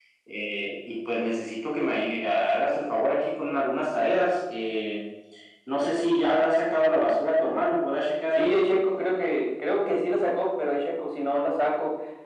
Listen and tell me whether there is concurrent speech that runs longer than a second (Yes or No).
No